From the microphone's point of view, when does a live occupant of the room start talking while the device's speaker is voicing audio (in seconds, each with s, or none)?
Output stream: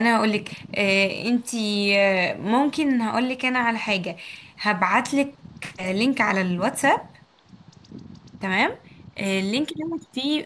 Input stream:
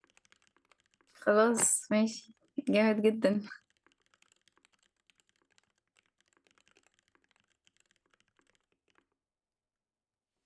1.2 s